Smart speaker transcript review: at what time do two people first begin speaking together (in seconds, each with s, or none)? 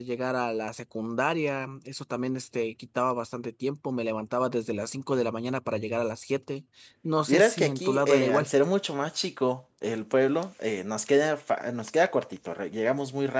7.3 s